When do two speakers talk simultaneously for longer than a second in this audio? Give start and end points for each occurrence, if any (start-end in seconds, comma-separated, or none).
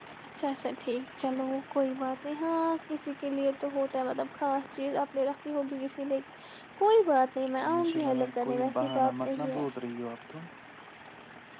7.8-9.7